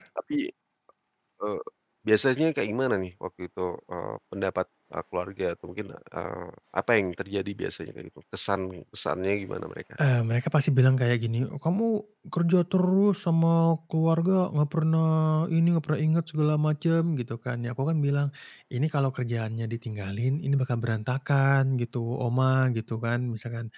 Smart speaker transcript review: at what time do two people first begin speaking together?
none

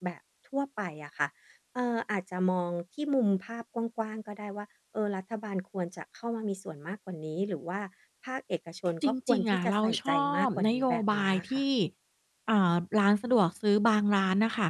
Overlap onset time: 9 s

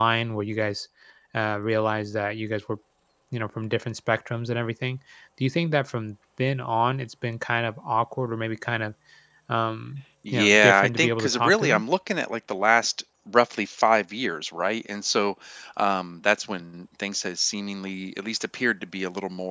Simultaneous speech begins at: 10 s

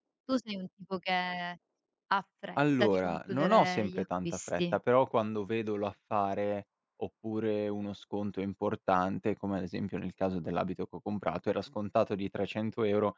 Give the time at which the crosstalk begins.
3 s

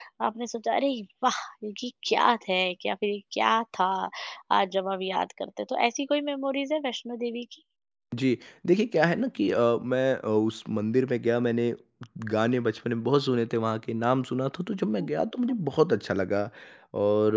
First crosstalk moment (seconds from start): none

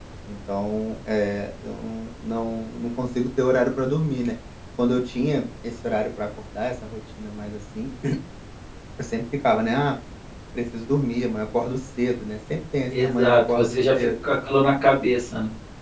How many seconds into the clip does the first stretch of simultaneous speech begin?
13 s

